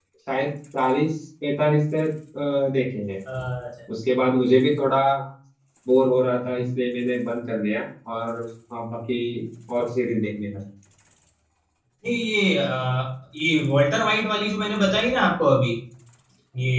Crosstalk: none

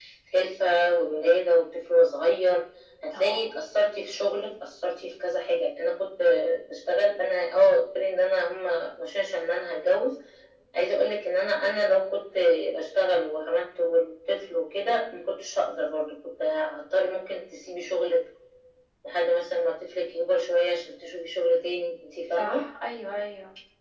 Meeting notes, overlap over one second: none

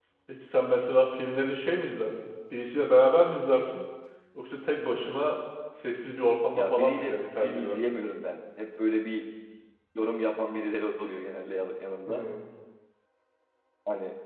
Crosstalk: present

